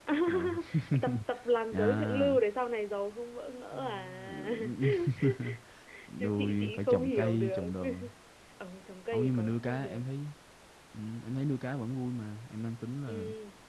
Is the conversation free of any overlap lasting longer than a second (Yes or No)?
No